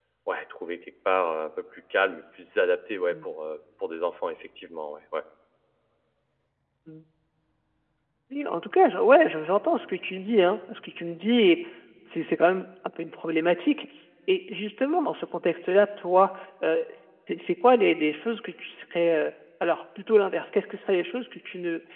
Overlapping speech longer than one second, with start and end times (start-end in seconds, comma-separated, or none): none